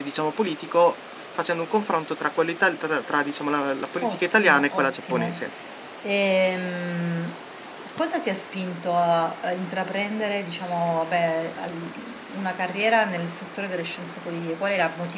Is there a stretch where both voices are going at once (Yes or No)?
Yes